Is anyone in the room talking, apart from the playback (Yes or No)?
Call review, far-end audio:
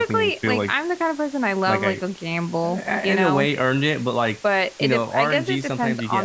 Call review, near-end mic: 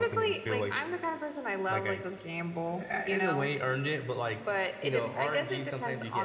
No